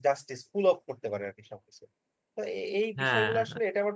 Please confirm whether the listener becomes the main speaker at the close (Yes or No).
No